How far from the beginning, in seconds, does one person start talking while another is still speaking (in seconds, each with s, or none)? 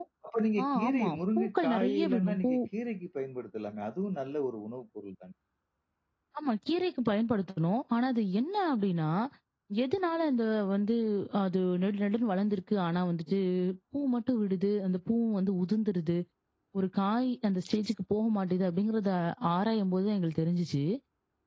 0.6 s